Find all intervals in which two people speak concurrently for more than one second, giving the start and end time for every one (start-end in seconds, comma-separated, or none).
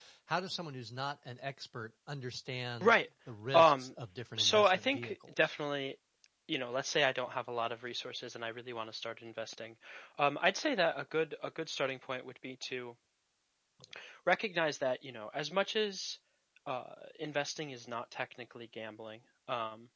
4.4-5.6